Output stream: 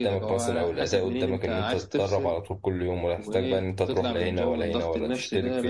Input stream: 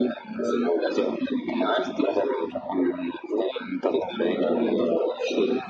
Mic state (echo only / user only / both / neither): echo only